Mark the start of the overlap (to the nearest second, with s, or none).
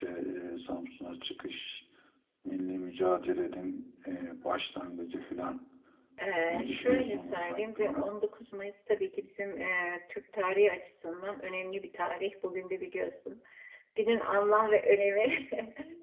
6 s